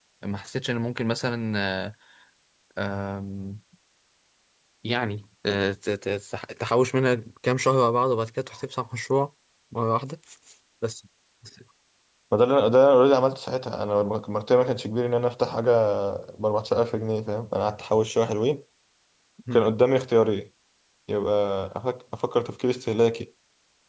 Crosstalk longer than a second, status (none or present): none